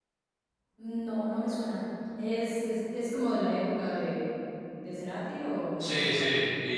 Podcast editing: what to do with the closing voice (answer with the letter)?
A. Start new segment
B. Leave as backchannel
A